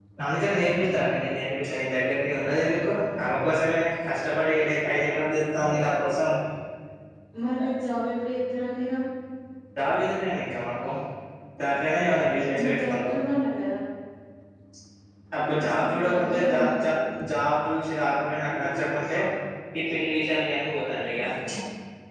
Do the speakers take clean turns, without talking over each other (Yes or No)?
No